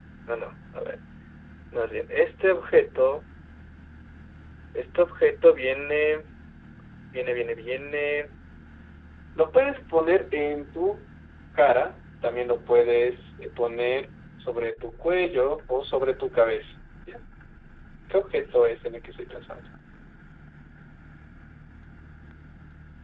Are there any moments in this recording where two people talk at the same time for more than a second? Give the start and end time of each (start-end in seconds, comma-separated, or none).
none